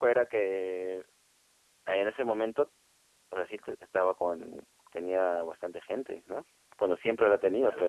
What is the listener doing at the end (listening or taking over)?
taking over